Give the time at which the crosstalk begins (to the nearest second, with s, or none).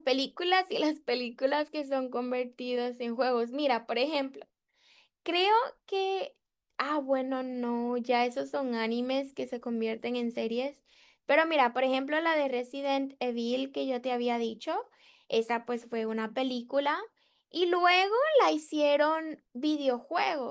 none